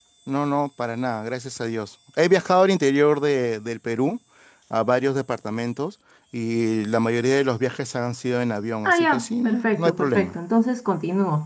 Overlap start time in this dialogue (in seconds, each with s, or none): 8.8 s